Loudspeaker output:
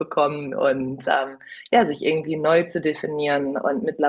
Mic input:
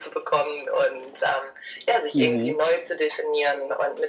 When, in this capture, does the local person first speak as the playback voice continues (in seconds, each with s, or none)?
2.1 s